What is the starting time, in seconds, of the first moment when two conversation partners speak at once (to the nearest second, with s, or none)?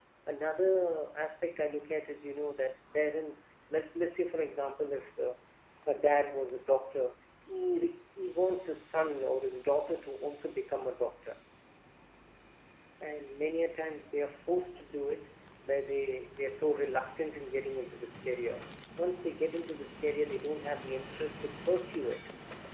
none